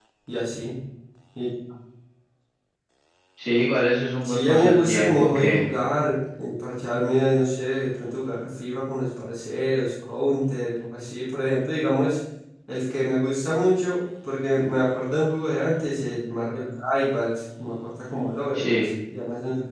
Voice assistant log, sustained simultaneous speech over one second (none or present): present